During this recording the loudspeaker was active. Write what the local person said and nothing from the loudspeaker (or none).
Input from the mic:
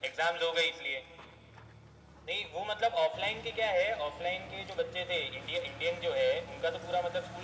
none